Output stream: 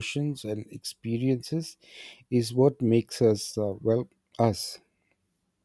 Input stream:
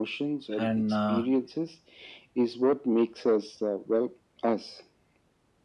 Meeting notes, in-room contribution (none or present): present